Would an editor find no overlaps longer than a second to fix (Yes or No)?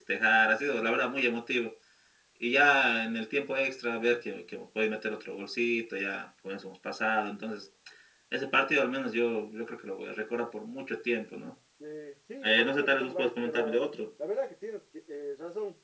No